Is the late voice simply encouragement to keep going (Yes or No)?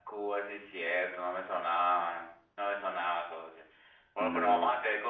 Yes